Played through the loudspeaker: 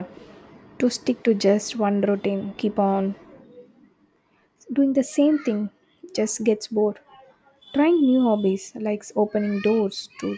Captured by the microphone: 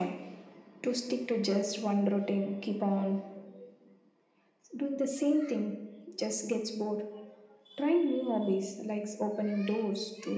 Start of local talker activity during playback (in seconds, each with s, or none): none